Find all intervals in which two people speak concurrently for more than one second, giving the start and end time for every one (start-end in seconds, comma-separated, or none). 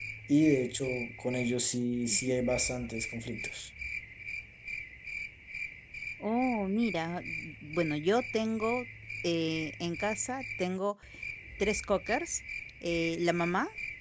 none